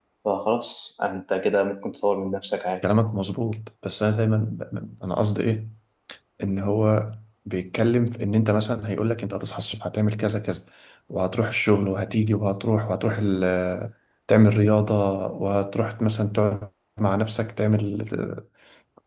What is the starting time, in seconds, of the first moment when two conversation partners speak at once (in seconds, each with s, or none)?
none